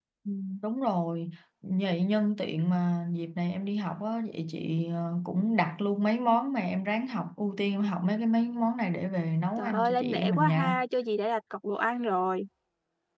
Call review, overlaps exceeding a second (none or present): present